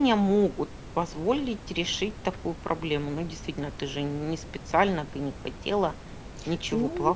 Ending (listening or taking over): taking over